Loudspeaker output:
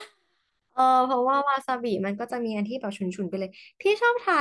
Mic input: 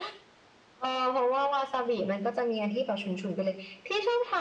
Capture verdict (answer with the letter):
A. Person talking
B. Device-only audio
B